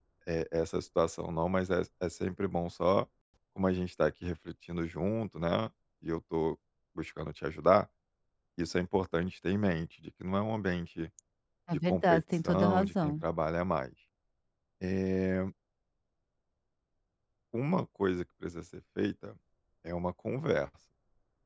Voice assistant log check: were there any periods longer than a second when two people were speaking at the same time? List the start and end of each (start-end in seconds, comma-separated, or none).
11.9-13.2